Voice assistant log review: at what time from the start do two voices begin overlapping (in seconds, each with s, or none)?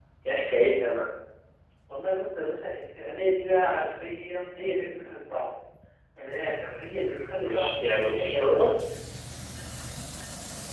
7.4 s